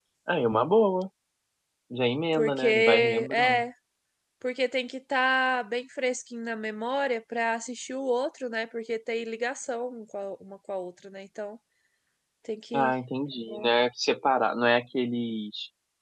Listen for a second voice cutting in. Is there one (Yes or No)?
Yes